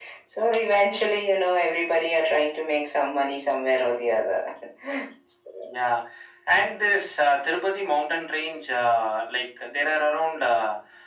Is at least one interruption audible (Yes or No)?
No